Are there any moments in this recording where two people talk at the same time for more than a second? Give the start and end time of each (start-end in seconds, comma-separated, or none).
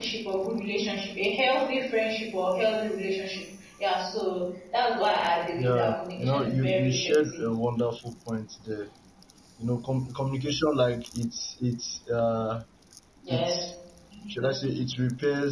5.6-7.4